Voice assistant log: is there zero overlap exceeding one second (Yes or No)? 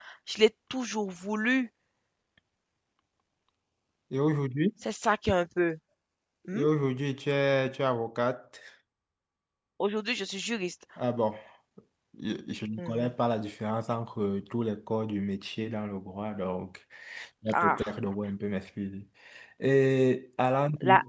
Yes